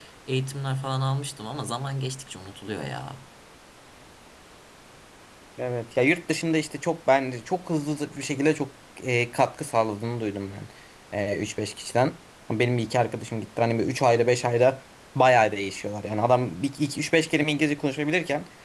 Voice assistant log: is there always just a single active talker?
Yes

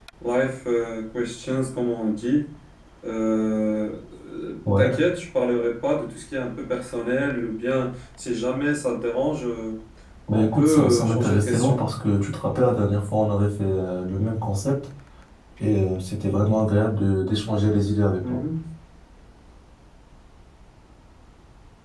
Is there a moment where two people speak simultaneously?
Yes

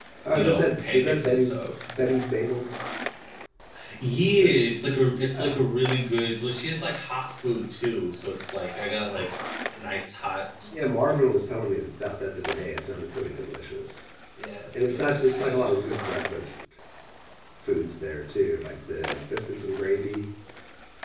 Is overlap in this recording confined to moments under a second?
No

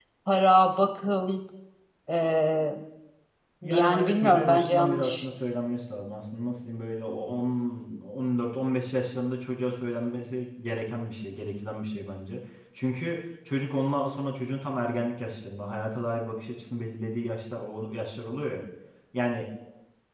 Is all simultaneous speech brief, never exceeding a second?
No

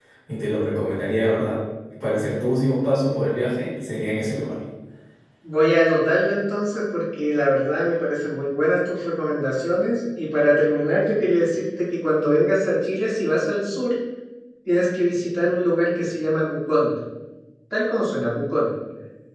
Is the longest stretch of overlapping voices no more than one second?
Yes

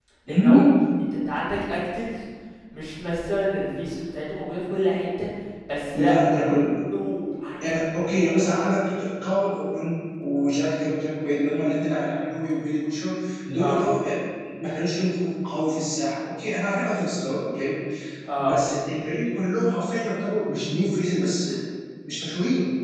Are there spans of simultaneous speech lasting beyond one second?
No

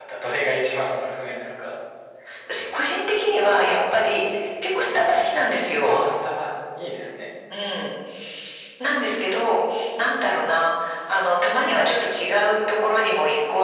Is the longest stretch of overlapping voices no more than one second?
Yes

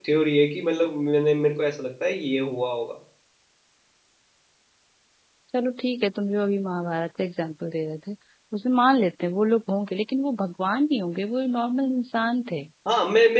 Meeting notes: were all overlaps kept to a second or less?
Yes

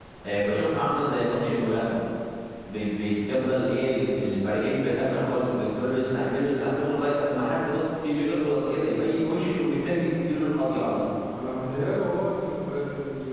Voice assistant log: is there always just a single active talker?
Yes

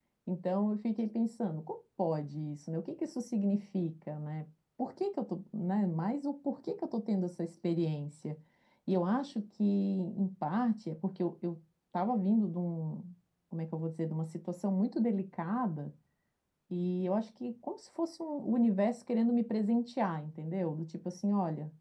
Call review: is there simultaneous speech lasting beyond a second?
No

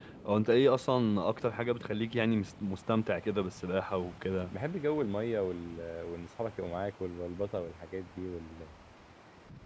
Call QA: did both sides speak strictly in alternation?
Yes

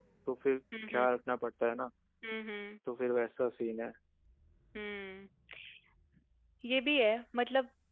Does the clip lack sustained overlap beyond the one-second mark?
Yes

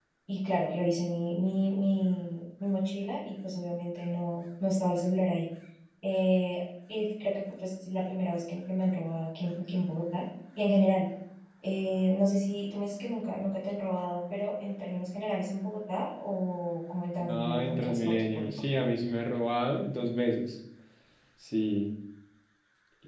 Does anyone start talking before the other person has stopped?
Yes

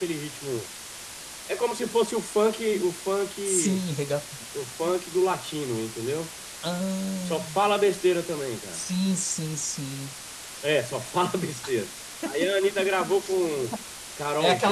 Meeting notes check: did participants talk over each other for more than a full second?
No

